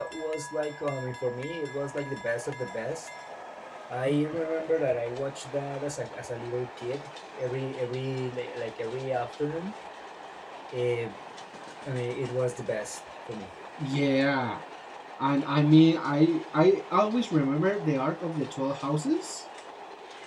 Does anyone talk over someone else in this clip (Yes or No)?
No